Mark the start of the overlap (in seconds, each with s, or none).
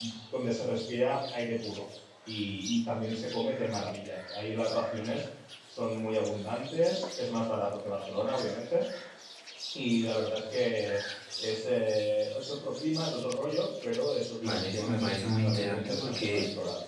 14.4 s